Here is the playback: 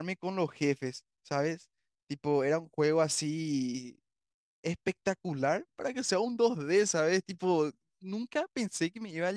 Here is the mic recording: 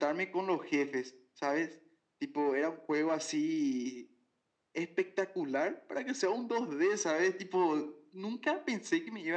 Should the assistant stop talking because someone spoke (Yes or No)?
No